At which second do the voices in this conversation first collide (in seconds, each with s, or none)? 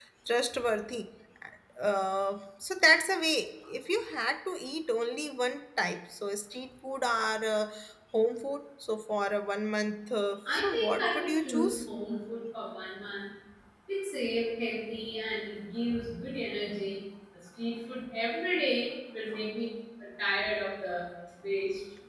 10.4 s